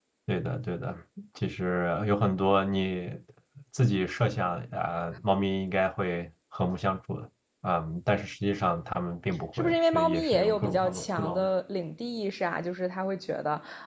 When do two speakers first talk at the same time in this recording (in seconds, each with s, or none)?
9.5 s